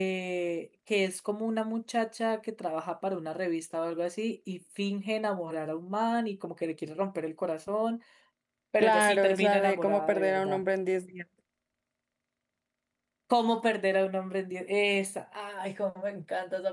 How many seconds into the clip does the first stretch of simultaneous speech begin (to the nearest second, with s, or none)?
9 s